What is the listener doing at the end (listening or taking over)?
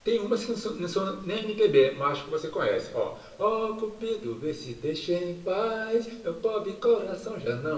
listening